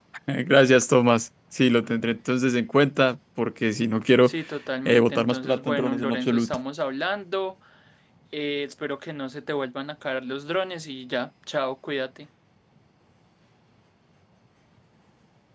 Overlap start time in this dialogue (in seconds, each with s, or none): 4.8 s